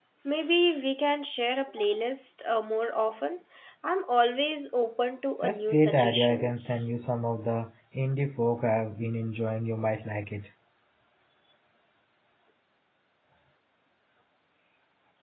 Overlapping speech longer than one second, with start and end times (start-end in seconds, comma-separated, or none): 5.4-6.9